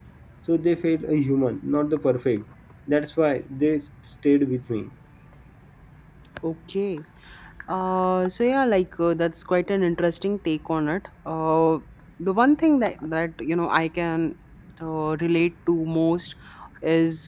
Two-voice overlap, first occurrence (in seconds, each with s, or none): none